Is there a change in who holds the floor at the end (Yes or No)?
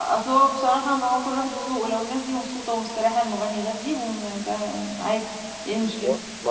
Yes